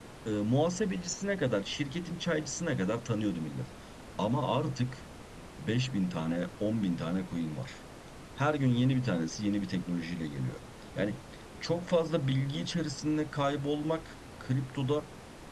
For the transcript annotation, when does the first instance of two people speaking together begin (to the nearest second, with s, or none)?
none